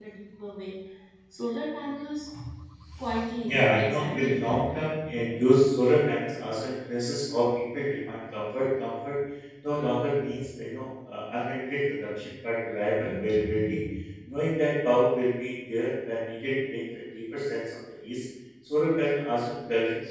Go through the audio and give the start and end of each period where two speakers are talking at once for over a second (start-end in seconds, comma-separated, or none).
3.4-4.7